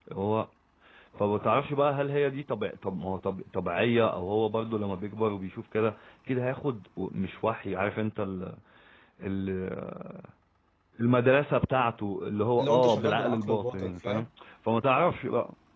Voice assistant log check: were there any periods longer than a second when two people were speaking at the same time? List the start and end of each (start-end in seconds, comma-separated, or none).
12.6-14.3